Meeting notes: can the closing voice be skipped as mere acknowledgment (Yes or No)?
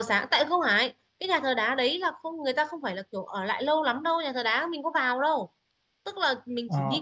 No